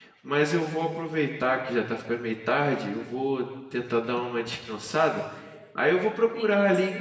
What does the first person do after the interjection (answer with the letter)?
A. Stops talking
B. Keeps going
B